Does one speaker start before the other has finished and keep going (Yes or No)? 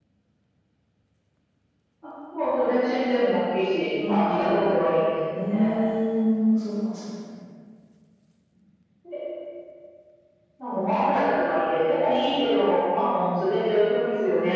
Yes